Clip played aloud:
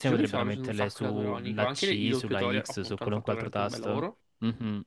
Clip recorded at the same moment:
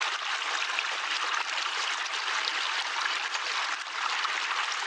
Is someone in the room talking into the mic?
No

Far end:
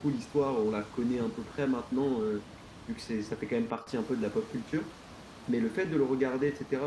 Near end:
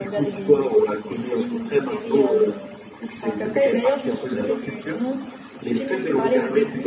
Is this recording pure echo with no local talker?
No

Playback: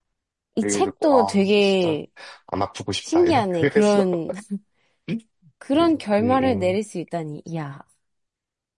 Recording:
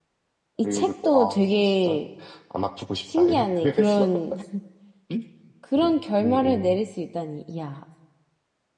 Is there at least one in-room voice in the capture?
No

